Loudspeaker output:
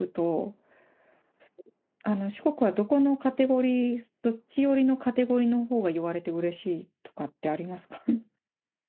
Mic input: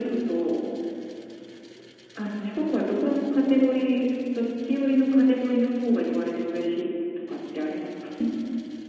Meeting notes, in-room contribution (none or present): none